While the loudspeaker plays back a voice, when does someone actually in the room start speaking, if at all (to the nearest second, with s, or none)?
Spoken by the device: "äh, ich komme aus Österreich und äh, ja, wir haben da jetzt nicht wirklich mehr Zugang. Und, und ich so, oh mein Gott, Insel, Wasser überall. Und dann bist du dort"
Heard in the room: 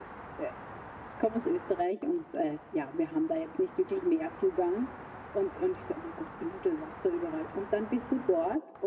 none